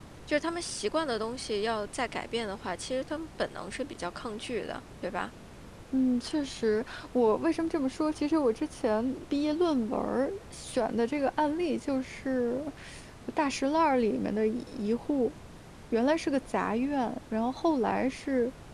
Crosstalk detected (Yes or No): No